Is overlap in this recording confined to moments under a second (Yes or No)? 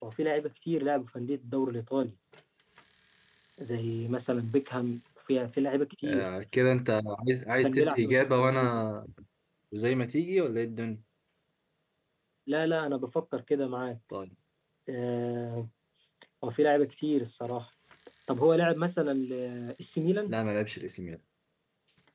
No